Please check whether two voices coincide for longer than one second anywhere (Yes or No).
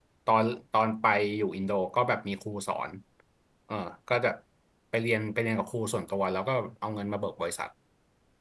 No